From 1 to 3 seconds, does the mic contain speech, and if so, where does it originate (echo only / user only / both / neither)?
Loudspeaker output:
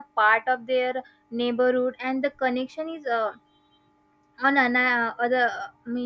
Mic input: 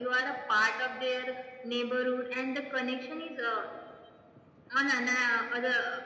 echo only